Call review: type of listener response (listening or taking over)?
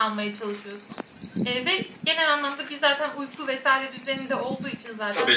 taking over